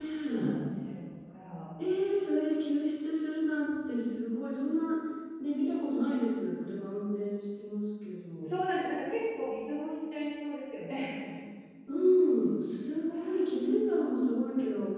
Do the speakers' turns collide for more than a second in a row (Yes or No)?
No